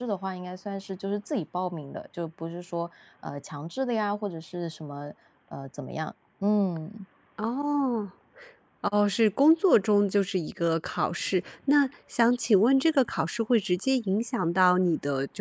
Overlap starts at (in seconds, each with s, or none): none